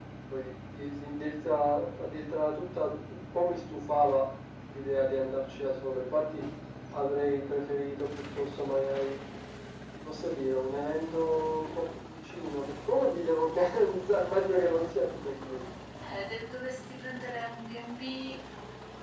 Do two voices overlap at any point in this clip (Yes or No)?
No